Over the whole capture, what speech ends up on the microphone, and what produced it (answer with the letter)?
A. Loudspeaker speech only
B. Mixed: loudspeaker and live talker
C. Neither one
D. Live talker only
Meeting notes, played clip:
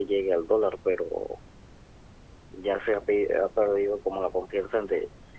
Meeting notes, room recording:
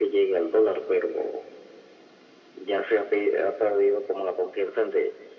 A